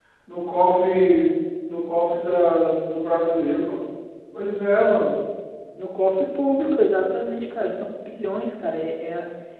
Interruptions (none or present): none